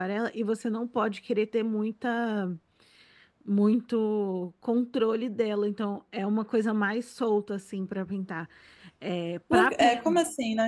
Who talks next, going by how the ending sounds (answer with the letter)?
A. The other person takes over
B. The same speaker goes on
A